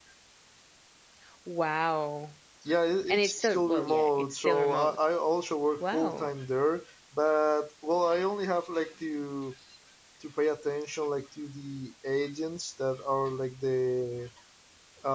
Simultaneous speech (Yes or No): Yes